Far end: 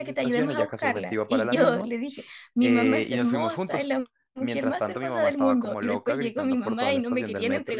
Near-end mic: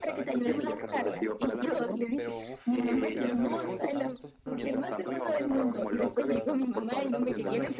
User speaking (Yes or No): Yes